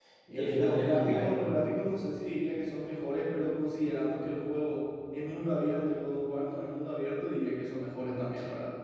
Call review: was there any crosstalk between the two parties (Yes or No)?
Yes